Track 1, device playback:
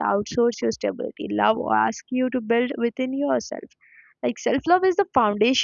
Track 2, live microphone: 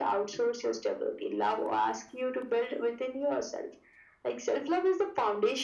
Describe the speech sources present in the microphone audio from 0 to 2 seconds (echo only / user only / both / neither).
echo only